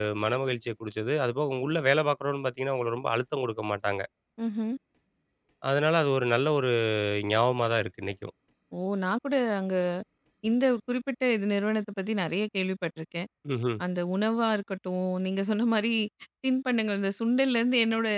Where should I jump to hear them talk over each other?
none

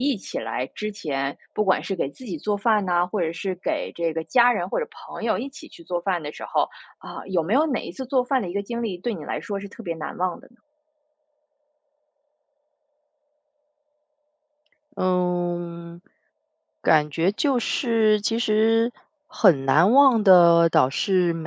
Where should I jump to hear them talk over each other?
none

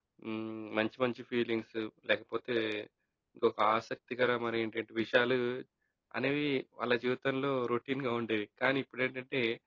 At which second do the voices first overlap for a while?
none

